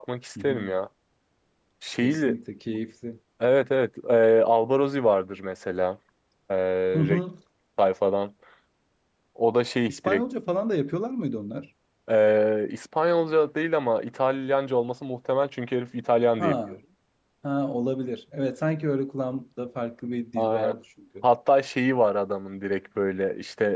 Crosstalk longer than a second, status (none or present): none